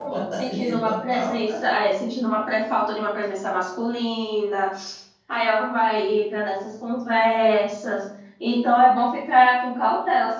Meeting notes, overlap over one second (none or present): present